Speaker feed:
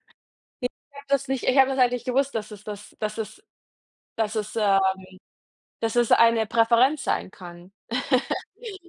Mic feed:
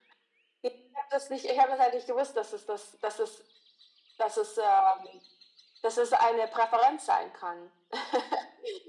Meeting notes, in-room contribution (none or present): none